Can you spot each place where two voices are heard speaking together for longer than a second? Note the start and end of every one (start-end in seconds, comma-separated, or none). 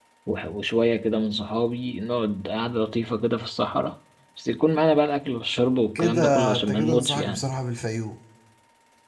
6.0-7.4